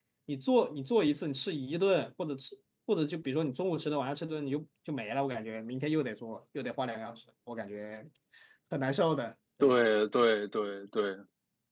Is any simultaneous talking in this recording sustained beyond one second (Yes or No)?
No